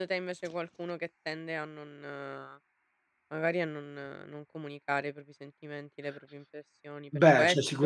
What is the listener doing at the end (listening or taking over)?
taking over